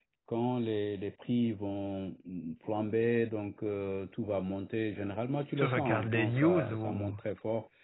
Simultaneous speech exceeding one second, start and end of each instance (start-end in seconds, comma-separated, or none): 5.6-7.2